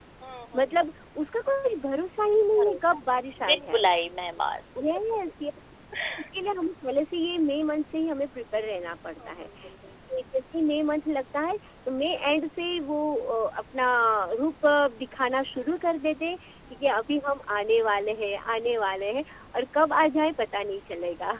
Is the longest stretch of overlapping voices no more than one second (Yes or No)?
No